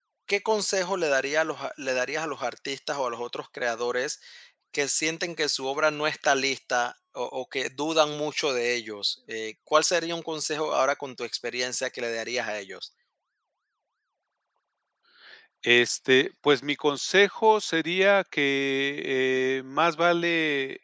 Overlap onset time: none

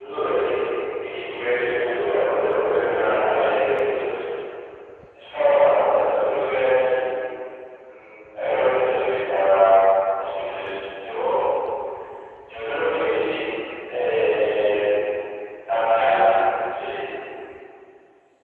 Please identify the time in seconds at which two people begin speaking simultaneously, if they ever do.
2.8 s

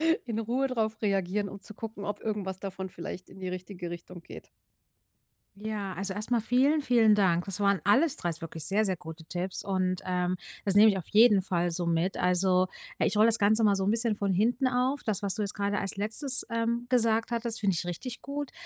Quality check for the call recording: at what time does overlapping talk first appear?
none

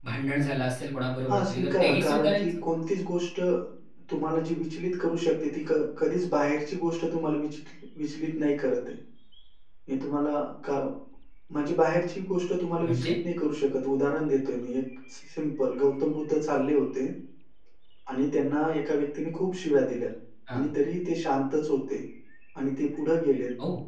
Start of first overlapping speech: 1.3 s

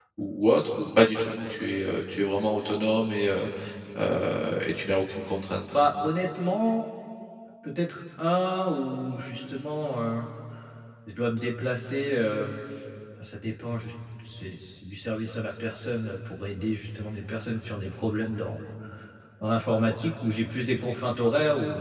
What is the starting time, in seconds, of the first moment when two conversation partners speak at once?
none

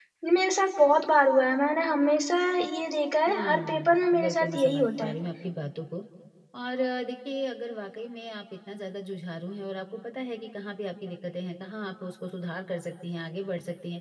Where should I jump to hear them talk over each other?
3.3 s

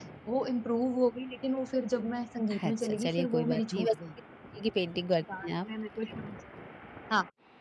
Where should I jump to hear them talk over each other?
2.7 s

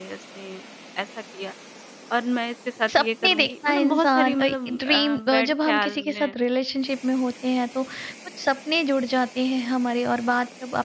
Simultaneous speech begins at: 2.9 s

